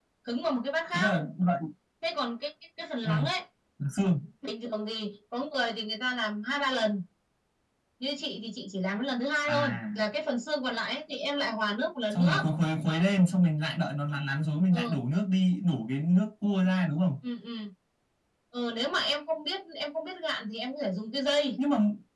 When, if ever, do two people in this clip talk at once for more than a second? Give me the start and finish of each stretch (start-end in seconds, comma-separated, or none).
none